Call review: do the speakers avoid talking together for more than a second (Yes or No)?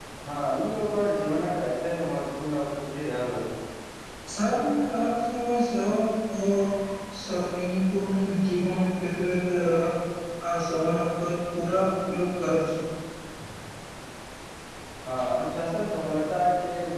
Yes